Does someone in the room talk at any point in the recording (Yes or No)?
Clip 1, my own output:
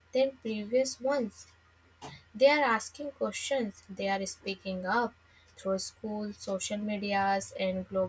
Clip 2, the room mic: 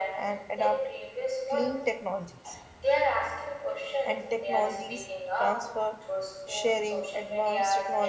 Yes